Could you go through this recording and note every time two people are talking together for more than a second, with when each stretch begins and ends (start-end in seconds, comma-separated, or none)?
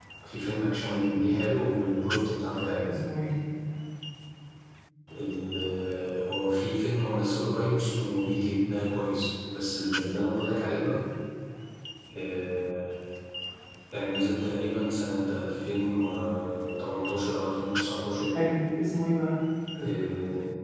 none